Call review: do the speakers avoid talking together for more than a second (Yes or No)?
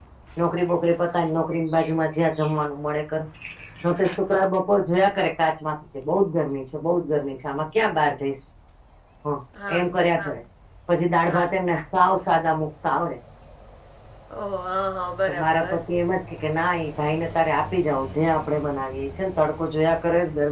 Yes